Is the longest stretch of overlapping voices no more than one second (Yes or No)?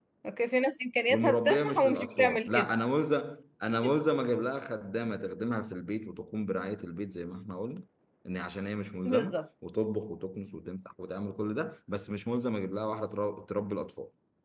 No